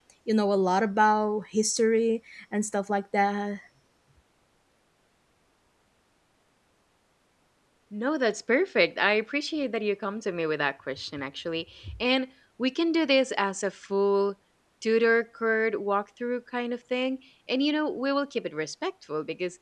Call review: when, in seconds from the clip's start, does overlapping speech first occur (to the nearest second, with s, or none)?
none